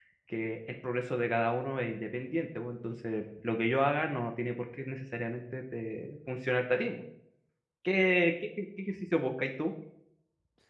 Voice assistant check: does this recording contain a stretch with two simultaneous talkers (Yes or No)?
No